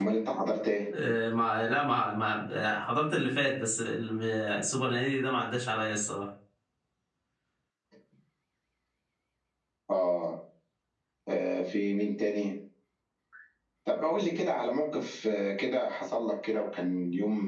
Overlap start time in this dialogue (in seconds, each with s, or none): none